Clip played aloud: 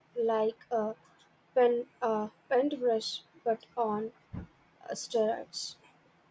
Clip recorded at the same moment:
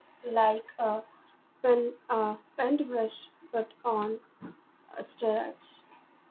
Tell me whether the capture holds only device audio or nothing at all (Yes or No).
Yes